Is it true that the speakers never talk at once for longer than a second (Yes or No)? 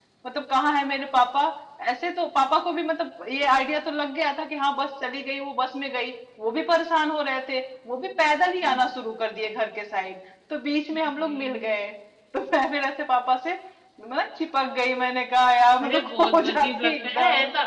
No